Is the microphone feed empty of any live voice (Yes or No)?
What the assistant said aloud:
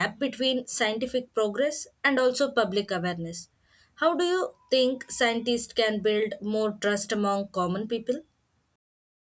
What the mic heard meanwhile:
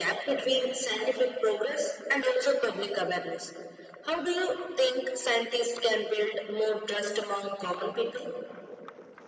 Yes